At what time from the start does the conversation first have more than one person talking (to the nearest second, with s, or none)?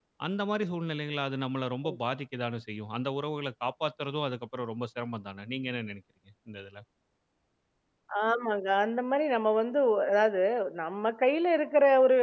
none